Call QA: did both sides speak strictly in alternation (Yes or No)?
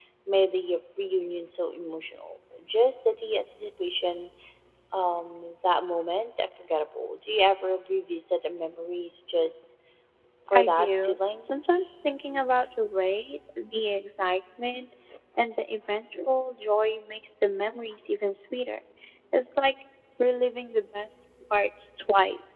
No